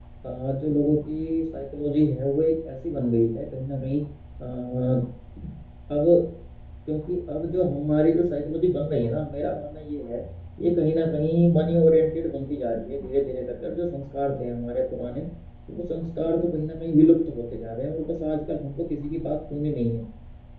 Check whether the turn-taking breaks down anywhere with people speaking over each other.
No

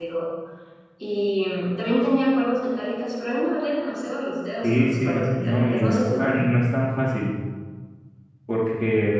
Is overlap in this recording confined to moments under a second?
No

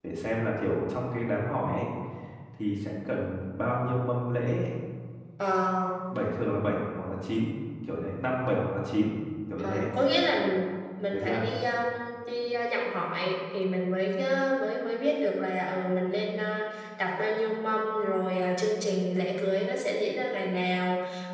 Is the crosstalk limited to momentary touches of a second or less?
Yes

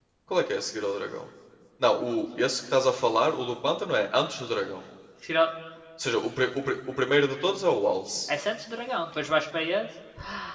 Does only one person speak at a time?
Yes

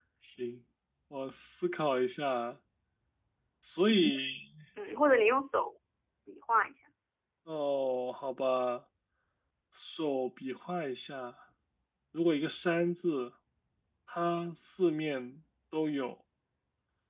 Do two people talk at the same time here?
No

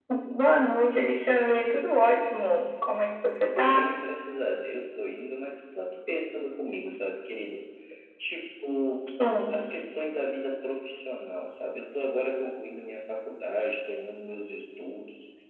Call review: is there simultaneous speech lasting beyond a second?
No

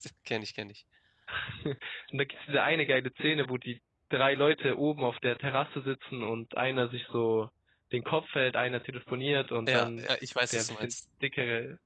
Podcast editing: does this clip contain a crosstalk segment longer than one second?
No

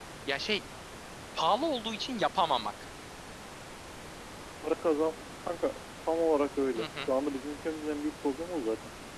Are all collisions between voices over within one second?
Yes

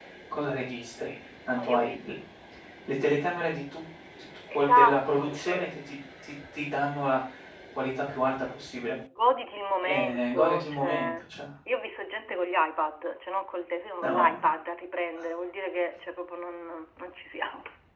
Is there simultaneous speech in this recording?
Yes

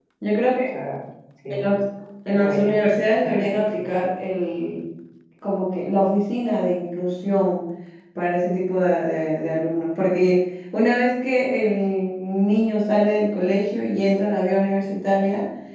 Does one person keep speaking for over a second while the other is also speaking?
Yes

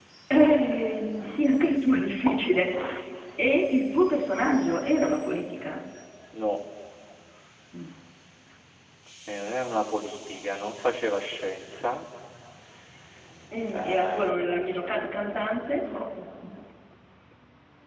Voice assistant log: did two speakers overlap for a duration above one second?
Yes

